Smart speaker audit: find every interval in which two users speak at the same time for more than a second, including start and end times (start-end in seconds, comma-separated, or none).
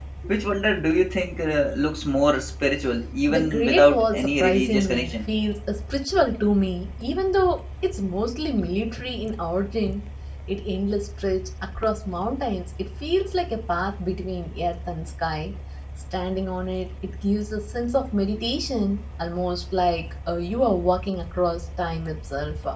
3.3-5.1